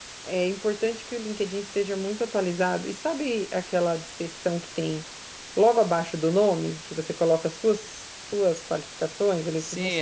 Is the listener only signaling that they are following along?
No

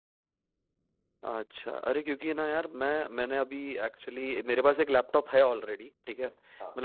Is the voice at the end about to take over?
No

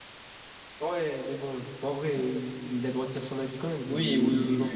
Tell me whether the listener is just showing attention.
No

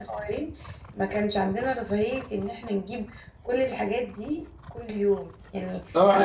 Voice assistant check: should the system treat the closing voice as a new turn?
Yes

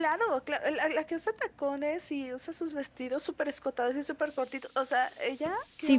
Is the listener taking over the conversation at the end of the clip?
Yes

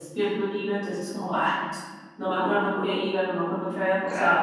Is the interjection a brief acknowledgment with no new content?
No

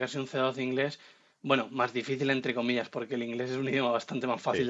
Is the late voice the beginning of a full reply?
No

